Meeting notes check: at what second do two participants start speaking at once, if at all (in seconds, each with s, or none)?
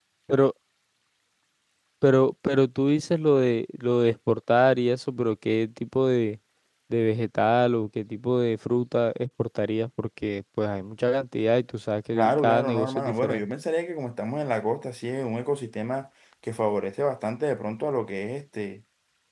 12.1 s